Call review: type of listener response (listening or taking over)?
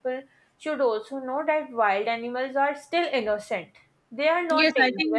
taking over